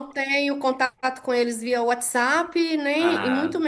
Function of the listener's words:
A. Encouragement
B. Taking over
A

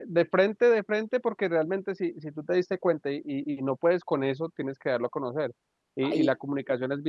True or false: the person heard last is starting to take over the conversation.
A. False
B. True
A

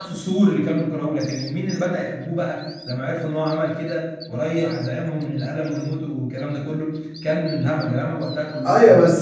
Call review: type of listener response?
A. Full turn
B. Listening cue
A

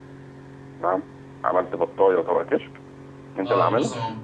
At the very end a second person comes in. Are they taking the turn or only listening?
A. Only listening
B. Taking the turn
B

